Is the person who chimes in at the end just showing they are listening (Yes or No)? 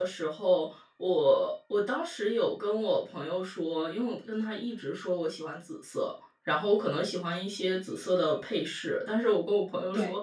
Yes